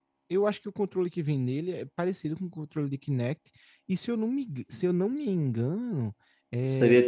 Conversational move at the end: taking over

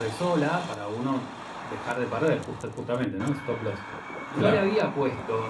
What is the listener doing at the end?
listening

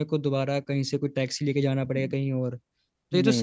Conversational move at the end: listening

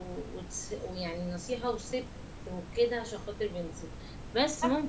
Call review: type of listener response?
listening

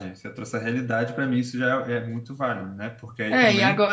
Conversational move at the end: taking over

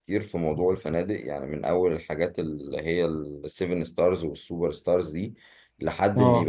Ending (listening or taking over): listening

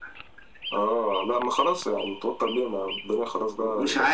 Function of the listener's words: taking over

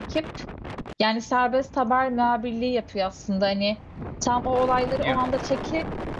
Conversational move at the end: listening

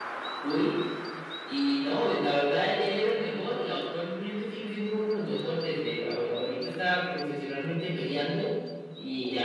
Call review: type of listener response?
listening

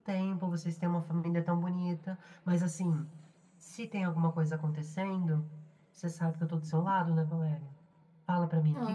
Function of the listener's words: taking over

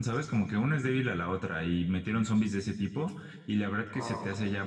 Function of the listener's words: listening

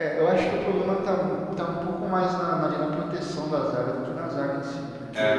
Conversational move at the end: listening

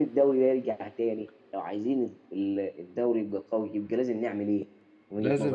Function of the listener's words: taking over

